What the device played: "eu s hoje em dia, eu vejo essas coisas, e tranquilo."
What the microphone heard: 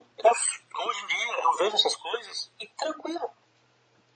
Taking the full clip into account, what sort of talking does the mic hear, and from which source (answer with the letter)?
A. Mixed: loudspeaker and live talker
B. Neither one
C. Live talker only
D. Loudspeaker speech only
D